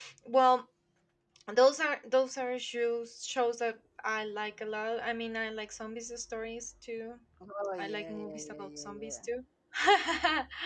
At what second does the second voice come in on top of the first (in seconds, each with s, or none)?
7.8 s